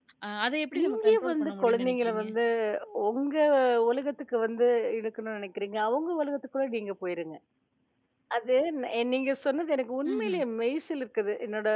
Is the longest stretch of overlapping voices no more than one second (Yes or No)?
No